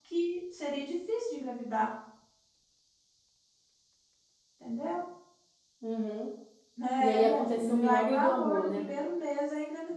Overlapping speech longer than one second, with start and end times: 7.0-8.9

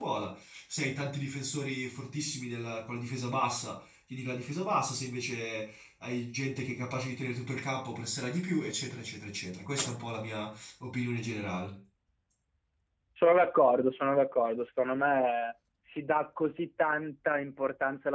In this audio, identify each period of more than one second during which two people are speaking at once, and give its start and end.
none

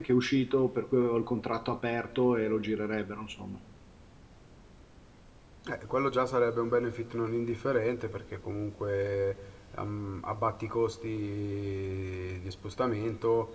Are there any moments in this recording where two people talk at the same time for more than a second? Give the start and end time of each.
none

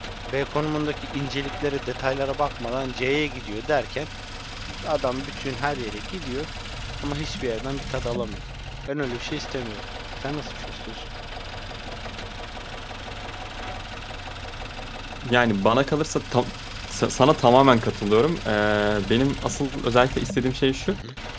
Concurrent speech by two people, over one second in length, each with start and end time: none

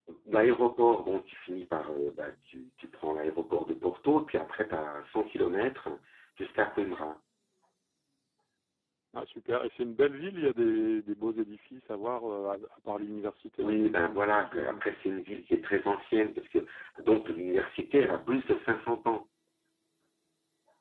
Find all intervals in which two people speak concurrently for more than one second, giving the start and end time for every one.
13.6-14.8

